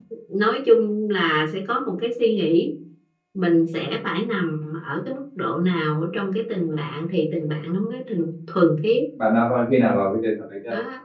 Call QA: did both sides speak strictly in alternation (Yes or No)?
Yes